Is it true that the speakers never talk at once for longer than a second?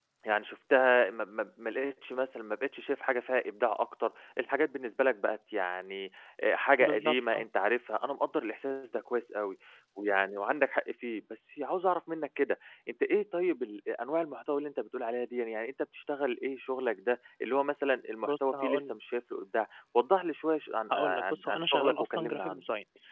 No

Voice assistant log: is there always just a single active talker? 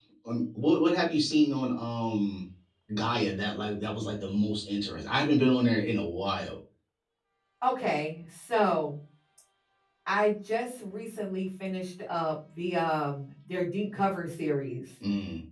Yes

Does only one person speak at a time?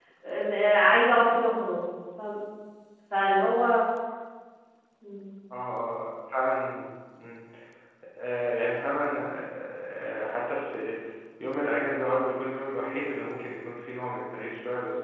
Yes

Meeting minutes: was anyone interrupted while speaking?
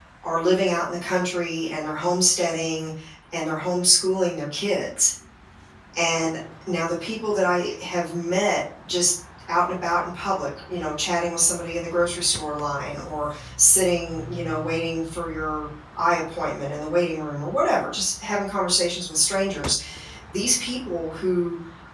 No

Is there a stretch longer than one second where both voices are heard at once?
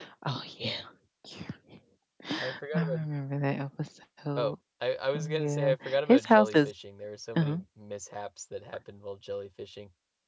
Yes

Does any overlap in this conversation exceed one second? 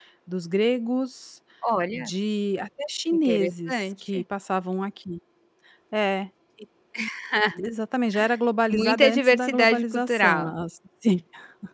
Yes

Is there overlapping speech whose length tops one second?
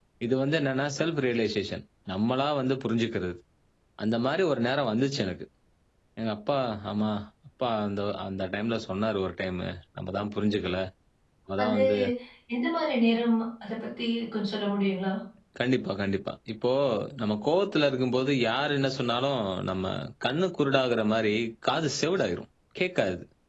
No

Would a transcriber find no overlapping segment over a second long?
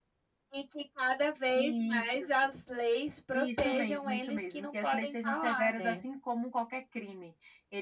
No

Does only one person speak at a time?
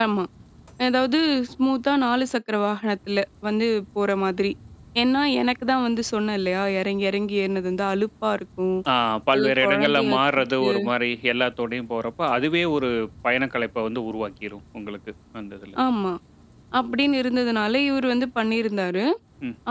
No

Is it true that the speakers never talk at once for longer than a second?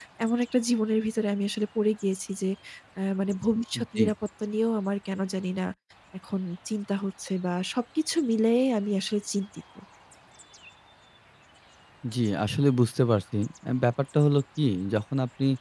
Yes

